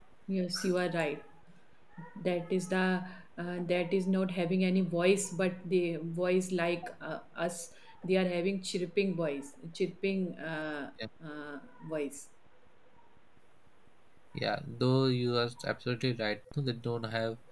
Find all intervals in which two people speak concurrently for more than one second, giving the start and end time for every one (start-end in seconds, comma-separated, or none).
none